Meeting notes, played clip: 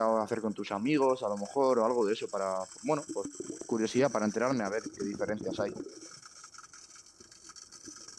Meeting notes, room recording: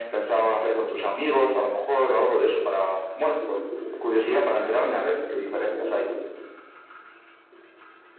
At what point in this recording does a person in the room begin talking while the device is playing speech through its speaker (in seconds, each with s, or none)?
none